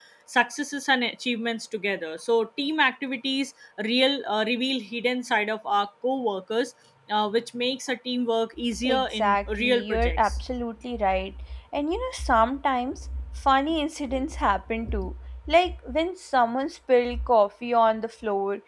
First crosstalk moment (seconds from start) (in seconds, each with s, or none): 8.7 s